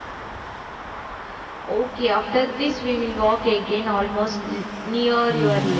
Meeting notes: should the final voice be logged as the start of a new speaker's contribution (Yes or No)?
Yes